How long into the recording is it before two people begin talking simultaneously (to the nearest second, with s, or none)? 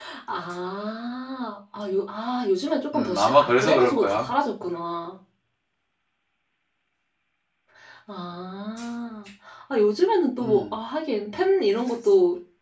3 s